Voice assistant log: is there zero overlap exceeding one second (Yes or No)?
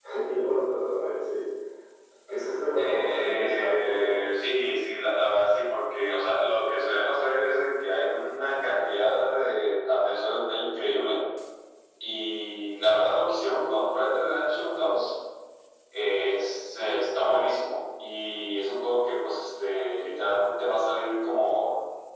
No